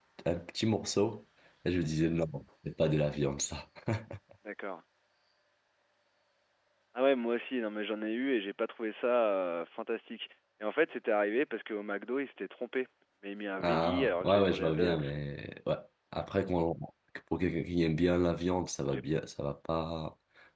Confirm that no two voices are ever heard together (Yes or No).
No